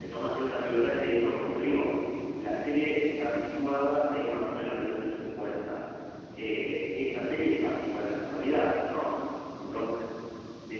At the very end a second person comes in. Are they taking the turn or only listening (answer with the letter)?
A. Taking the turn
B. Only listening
B